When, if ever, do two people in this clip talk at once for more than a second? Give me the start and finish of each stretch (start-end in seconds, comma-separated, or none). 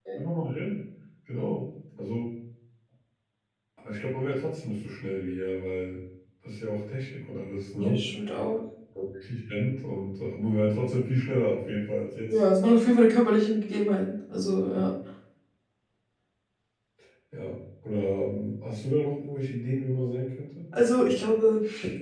none